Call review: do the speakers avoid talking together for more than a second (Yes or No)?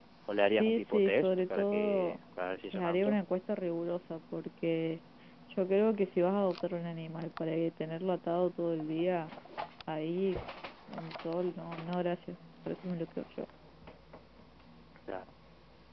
No